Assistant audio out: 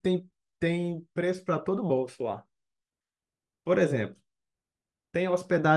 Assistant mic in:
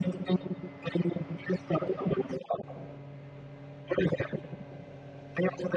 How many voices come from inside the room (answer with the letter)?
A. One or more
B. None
B